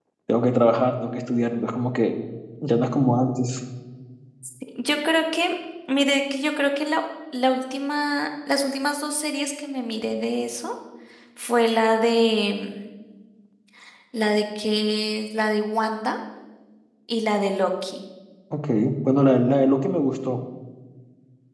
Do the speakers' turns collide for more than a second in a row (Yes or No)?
No